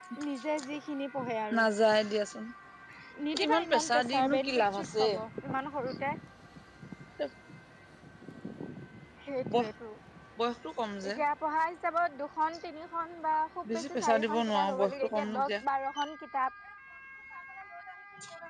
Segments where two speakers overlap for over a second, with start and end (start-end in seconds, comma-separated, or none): 3.5-5.1, 13.7-15.5